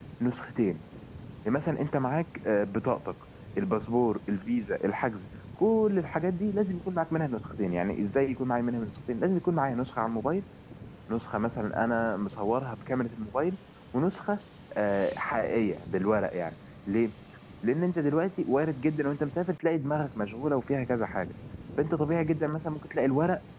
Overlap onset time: none

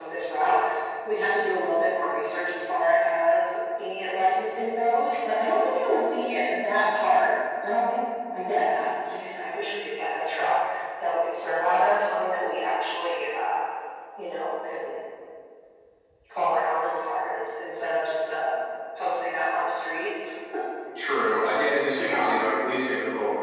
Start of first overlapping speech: none

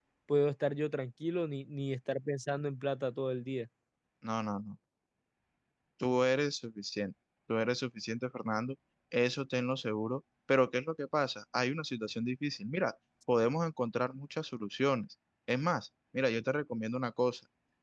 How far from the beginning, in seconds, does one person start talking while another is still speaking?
none

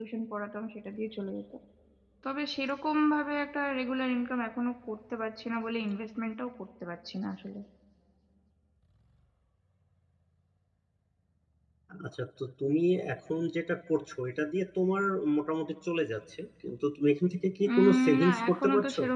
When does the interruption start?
17.6 s

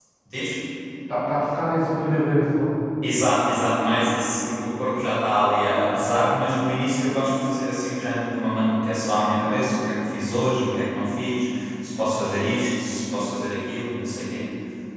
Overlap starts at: none

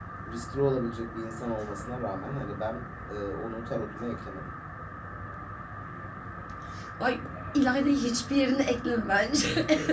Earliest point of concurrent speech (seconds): none

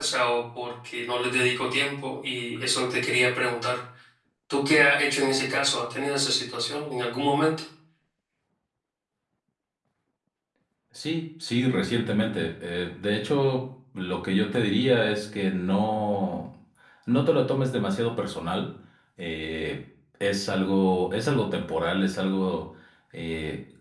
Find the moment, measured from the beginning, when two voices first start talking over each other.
none

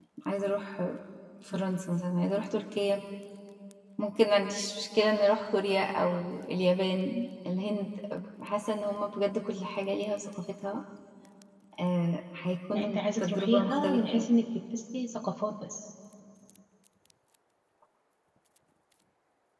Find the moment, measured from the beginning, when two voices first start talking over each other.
12.7 s

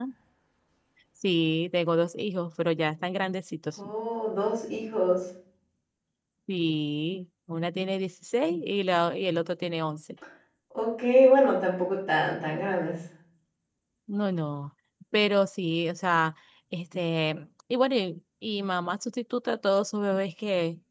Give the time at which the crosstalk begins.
none

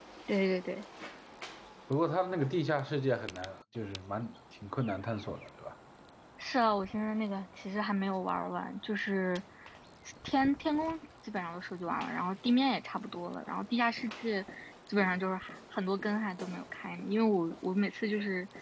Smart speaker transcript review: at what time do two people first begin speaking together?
none

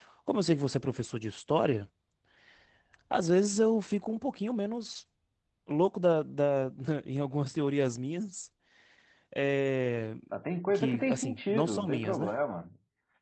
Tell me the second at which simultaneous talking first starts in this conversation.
10.7 s

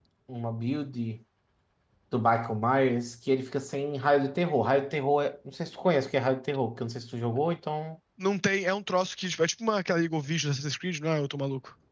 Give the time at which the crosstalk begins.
none

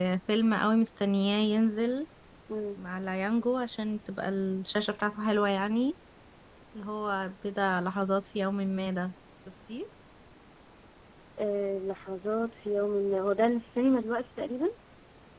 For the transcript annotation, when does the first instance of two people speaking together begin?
none

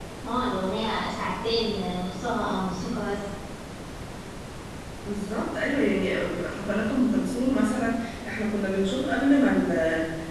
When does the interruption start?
none

